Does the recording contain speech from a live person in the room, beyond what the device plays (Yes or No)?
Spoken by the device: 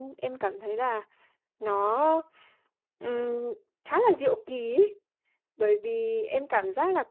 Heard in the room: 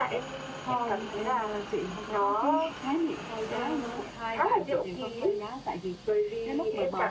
Yes